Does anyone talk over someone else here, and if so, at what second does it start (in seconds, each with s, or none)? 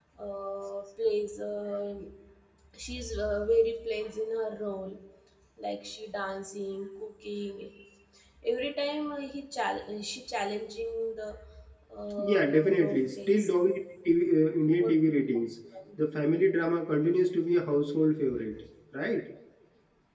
12.2 s